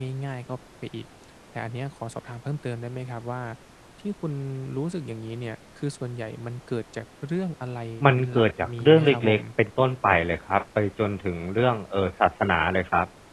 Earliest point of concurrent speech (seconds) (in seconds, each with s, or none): 8.0 s